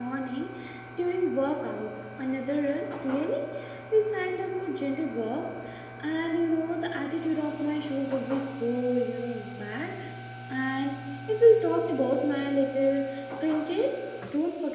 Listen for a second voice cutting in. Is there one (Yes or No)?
No